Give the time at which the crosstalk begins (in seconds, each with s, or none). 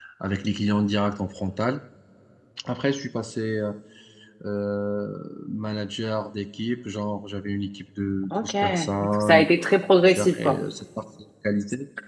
8.3 s